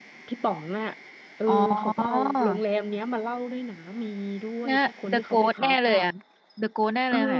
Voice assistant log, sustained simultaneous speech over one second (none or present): present